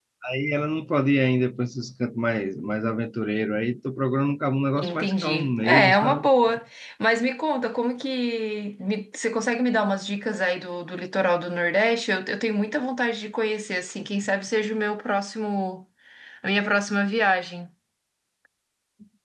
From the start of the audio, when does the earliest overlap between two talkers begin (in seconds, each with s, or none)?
4.8 s